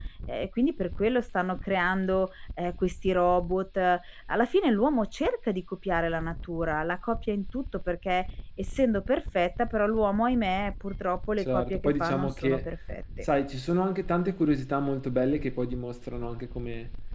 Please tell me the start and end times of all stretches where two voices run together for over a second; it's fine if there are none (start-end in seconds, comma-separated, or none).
11.4-12.6